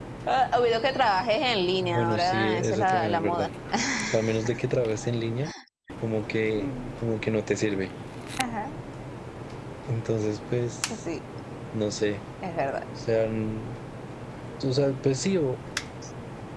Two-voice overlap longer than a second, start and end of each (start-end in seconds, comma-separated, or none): 1.8-3.5